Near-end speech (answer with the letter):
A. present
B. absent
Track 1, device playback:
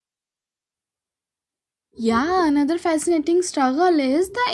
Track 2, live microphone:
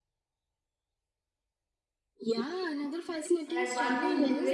A